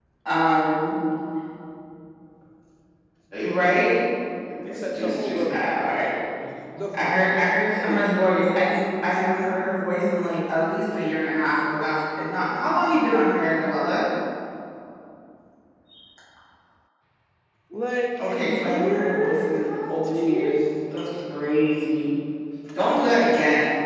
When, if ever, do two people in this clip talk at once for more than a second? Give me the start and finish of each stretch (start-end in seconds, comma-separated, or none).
4.7-6.0, 18.2-20.6